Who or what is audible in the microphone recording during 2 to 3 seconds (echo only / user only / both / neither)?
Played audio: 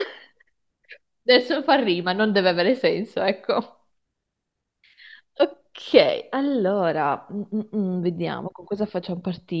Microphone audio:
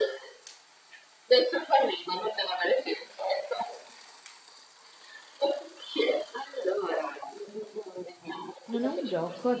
echo only